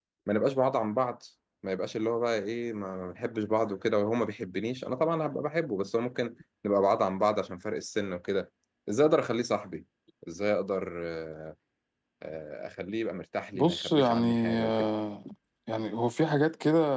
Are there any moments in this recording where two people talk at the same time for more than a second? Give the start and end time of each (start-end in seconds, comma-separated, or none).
13.6-14.9